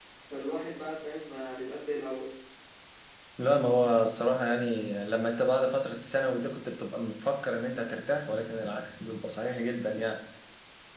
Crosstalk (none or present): none